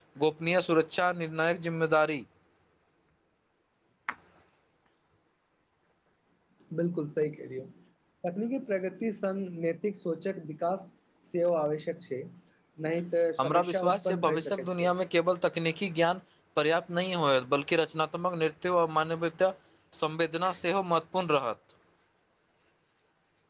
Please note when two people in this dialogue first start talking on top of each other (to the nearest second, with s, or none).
13 s